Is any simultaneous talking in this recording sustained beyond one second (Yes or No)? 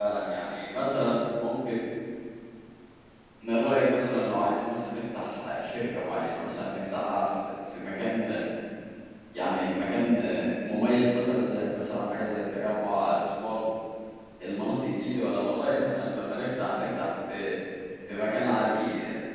No